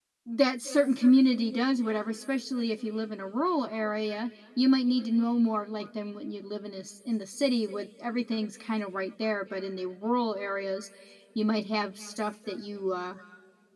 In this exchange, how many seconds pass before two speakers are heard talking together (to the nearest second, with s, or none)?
none